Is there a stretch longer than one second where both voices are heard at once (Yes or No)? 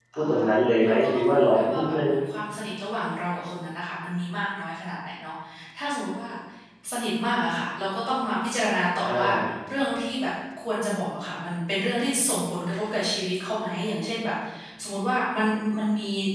Yes